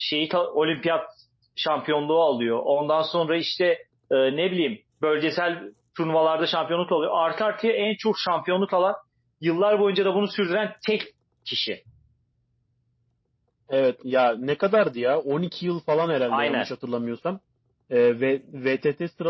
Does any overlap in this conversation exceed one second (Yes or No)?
No